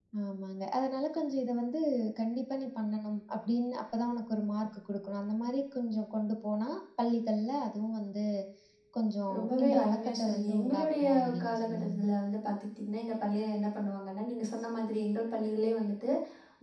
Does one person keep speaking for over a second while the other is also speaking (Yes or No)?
Yes